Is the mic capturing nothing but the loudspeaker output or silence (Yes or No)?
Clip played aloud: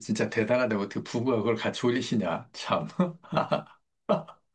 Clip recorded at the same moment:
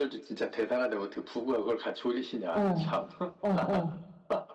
No